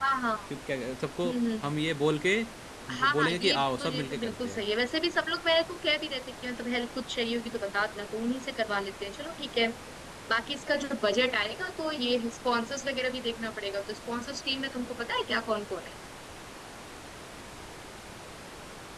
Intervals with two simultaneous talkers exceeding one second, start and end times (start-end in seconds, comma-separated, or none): 2.9-4.6